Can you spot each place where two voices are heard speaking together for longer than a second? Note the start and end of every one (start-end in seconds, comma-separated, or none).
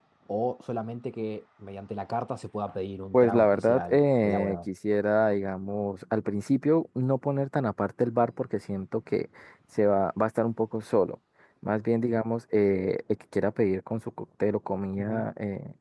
3.1-4.6